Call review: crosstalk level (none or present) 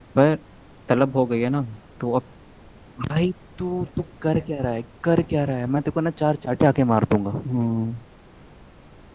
none